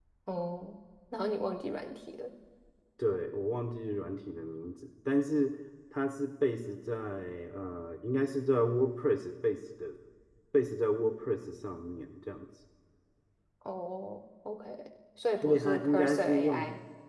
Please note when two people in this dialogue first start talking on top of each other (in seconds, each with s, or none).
15.4 s